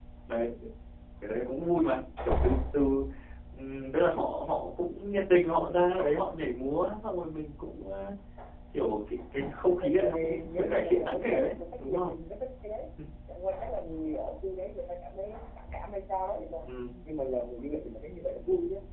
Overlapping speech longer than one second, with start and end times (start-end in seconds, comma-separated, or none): 9.8-12.1